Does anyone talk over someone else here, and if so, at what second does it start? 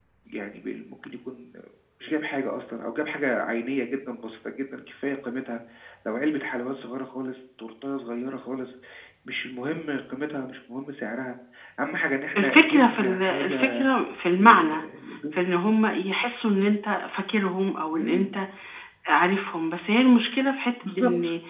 12.4 s

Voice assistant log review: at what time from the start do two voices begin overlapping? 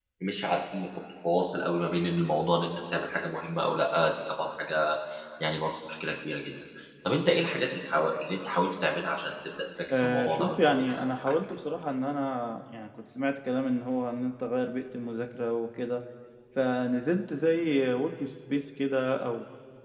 9.9 s

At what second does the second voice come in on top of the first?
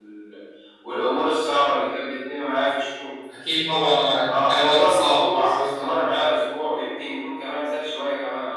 4.3 s

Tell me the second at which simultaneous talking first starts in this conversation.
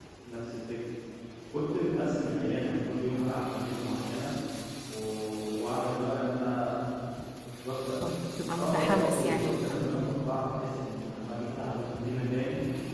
8.6 s

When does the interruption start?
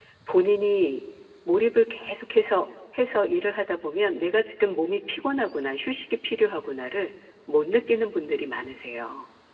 none

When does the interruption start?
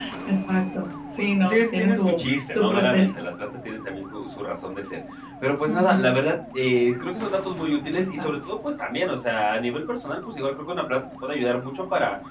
1.4 s

